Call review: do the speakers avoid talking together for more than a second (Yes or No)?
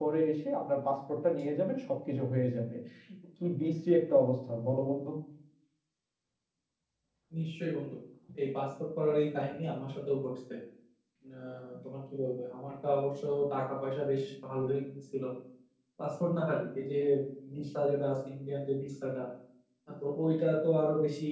Yes